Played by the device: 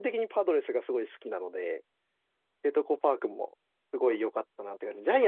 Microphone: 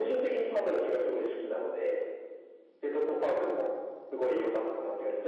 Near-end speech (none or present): none